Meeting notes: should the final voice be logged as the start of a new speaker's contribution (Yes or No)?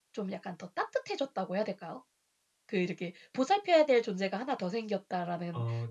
No